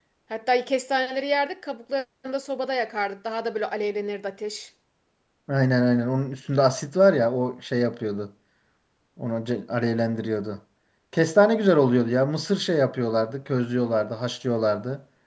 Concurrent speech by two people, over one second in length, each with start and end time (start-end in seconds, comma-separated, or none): none